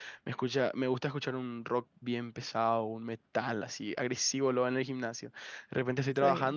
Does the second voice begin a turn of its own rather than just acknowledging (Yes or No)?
No